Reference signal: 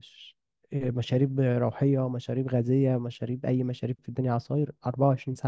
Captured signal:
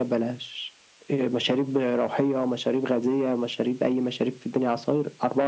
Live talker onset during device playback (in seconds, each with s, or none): none